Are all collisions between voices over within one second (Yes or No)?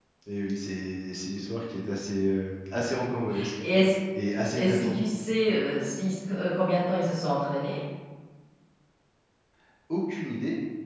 Yes